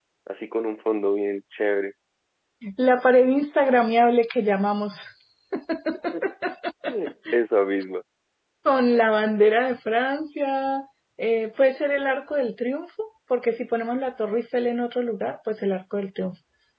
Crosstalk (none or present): none